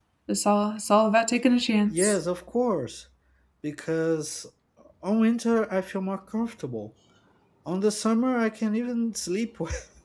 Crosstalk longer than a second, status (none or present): none